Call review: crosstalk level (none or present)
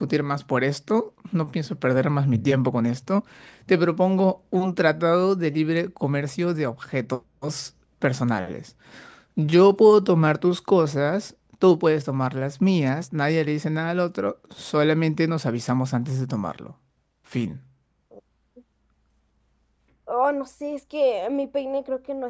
none